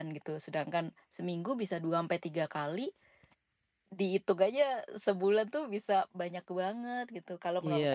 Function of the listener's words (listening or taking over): taking over